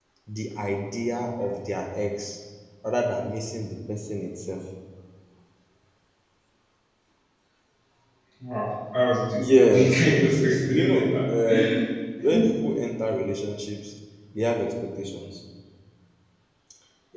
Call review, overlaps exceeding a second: present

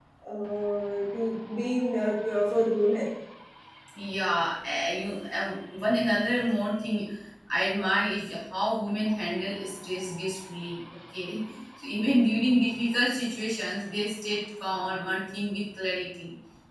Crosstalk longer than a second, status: none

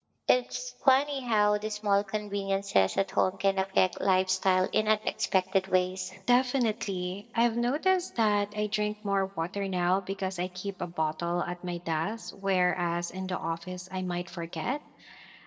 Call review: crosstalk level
none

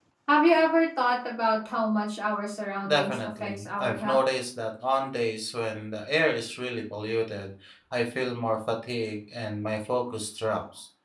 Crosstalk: present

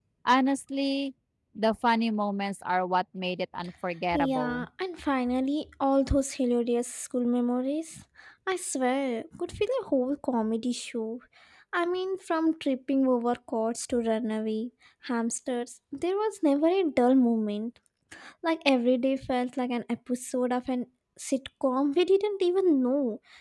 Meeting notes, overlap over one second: none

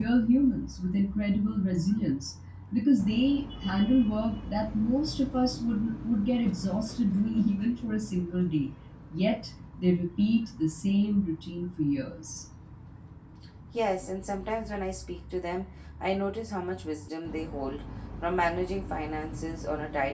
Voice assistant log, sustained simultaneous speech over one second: none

